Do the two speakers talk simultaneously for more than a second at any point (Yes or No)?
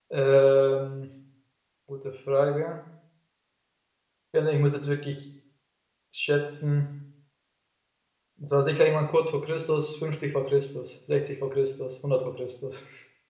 No